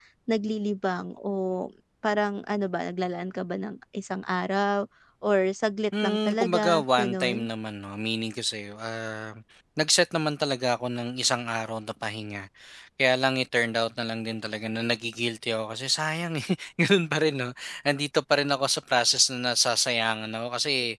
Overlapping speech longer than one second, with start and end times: 6.0-7.4

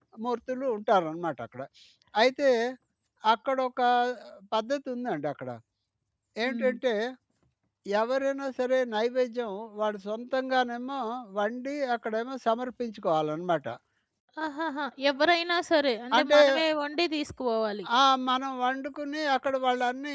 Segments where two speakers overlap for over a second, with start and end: none

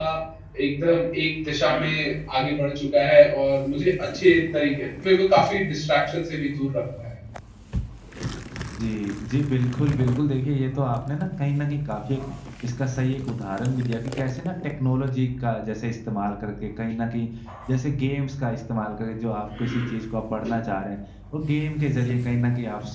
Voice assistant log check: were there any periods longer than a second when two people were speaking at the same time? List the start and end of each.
none

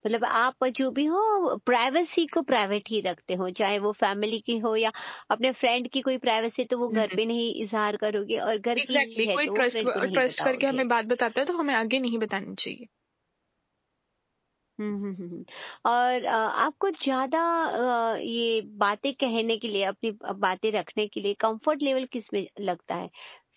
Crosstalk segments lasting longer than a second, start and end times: 8.8-10.8

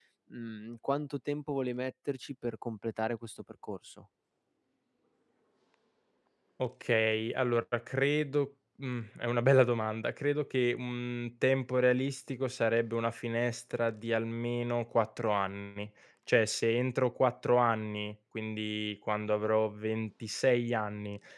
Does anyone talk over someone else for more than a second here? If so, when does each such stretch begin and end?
none

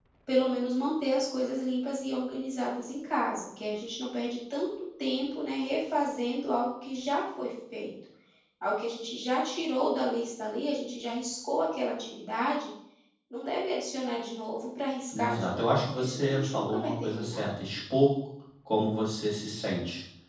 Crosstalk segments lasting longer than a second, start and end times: 15.2-17.5

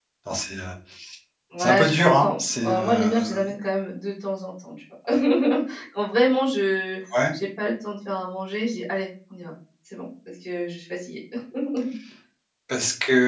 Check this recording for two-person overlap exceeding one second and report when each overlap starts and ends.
1.6-3.4

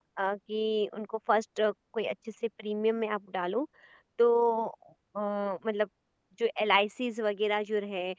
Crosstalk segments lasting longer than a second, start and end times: none

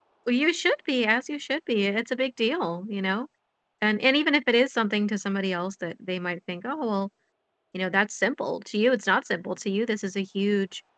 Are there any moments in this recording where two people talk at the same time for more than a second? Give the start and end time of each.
none

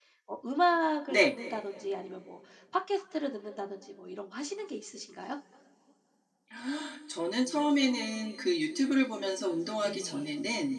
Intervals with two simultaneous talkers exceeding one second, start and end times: none

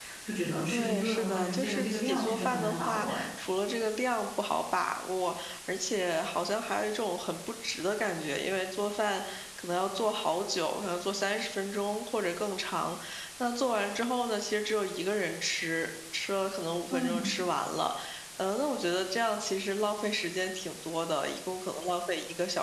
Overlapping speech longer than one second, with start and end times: 0.7-3.3

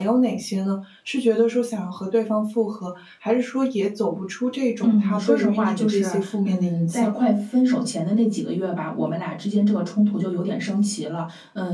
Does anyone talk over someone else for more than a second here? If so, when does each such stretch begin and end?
4.8-7.1

